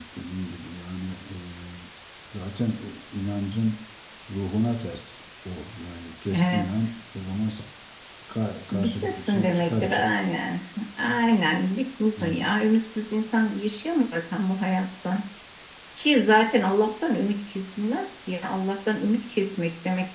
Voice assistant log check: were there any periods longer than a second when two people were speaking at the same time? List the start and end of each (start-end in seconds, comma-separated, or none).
8.7-10.0